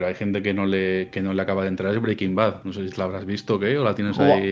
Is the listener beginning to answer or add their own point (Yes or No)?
Yes